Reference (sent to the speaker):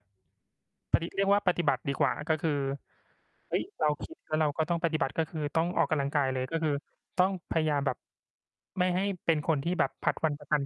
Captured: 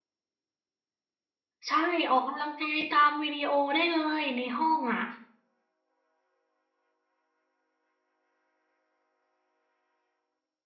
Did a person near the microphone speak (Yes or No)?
Yes